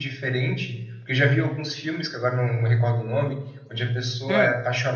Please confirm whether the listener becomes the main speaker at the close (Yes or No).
No